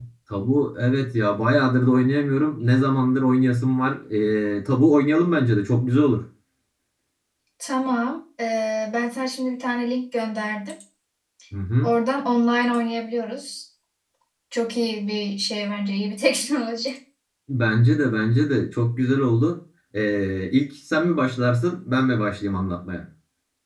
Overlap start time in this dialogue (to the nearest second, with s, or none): none